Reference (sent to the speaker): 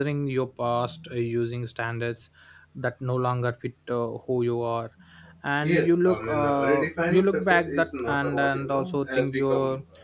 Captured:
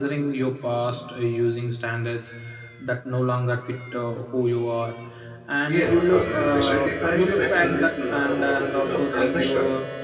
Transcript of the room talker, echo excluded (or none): Uh, sorry, ambition without directions uh, becomes a pressure.